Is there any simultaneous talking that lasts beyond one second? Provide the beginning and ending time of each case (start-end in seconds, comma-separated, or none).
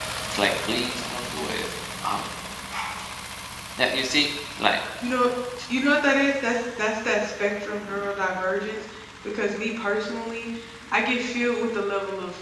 none